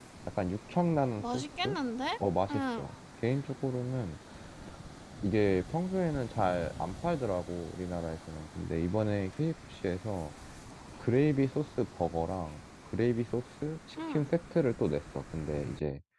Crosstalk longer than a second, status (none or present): none